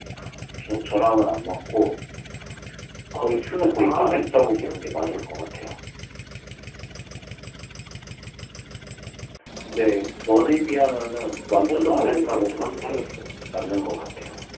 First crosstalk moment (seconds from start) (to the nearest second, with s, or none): 3 s